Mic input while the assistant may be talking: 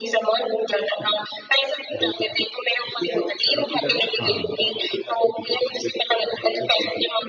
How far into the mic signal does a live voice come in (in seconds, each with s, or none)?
4.2 s